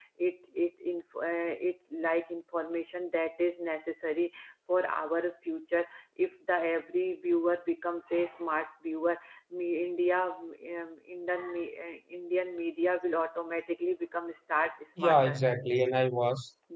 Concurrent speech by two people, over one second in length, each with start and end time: none

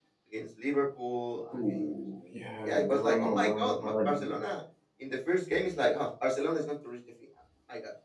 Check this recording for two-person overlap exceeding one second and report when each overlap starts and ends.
2.6-4.3

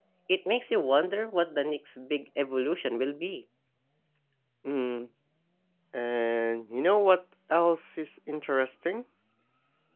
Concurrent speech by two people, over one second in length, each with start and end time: none

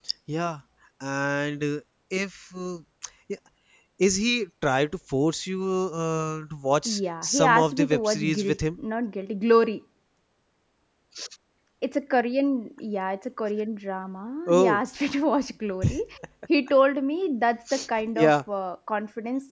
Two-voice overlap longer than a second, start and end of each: 6.8-8.6

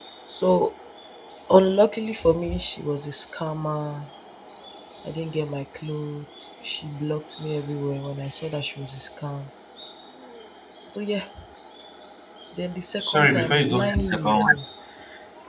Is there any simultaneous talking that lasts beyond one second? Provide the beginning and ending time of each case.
13.0-14.6

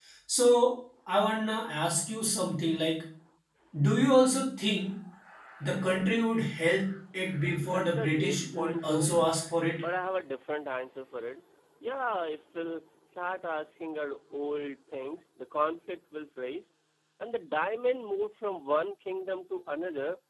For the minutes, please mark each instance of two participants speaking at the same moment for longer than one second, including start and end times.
7.6-9.1

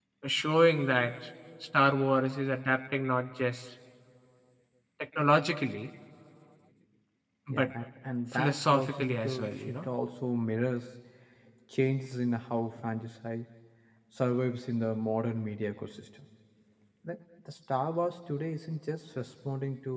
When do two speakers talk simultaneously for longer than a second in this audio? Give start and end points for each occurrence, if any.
8.3-9.8

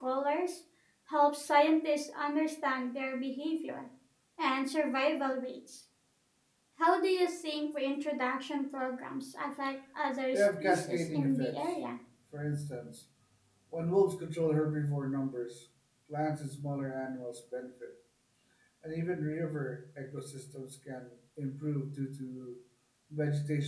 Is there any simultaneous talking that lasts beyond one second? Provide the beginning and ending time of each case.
10.3-11.7

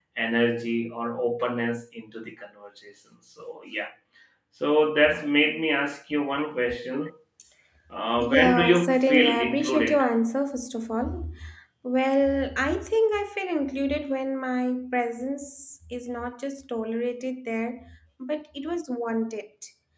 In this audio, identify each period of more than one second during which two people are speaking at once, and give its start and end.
8.2-10.0

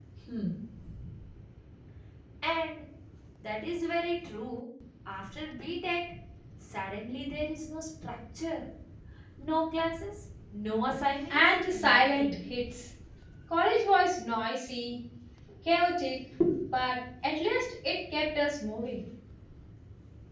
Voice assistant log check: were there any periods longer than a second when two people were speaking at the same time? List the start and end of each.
11.3-12.5

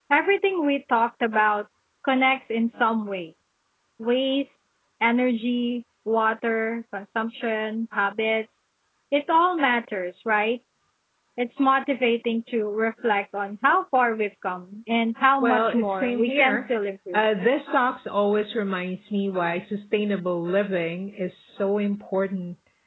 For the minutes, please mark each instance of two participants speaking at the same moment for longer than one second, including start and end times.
15.4-16.7

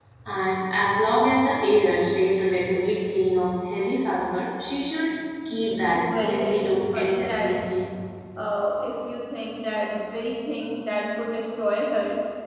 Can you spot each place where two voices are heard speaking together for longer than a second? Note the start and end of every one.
6.2-7.5

